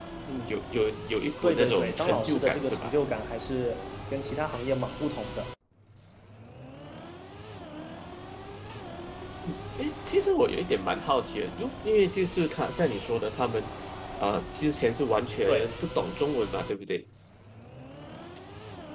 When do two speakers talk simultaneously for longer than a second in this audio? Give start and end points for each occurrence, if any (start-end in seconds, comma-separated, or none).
1.4-2.9